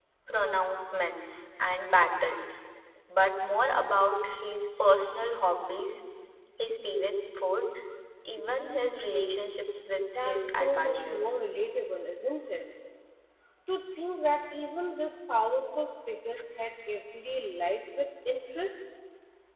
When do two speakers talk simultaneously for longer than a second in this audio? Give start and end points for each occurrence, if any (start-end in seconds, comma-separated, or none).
10.2-11.4